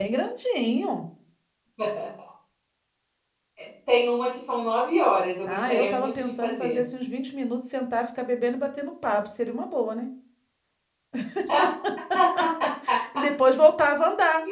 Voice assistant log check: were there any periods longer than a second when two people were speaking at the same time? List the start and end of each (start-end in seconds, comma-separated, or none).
5.5-6.8